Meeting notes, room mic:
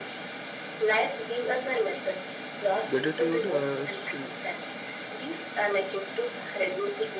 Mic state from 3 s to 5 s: both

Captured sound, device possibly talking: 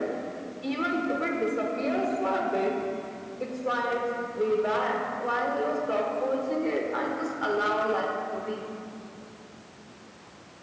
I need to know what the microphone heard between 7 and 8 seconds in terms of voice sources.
echo only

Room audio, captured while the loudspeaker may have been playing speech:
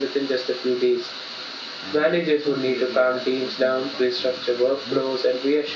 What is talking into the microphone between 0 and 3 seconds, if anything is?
both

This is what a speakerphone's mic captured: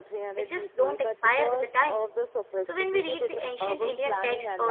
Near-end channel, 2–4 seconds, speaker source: both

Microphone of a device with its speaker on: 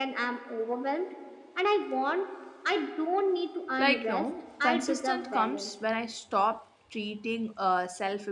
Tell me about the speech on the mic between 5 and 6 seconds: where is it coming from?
both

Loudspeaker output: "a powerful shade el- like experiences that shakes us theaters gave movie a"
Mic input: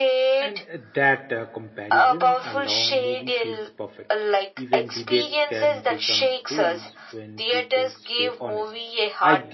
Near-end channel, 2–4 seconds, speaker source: both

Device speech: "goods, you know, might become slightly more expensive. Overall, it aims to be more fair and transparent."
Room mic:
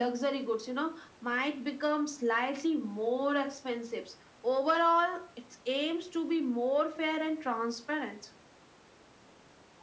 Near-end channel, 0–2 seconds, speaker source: echo only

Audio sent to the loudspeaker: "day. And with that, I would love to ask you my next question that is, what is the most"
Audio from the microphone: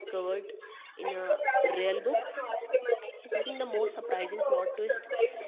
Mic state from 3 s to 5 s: both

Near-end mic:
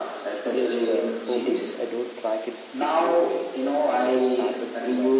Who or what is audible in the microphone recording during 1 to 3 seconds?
both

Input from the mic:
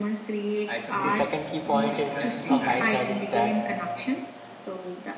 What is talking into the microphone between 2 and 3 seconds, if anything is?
both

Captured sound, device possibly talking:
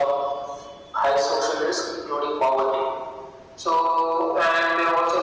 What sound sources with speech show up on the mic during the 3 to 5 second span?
echo only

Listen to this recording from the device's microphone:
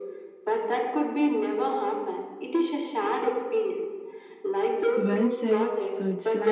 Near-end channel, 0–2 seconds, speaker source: echo only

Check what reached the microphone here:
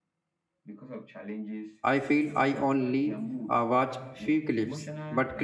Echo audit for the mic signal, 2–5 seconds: both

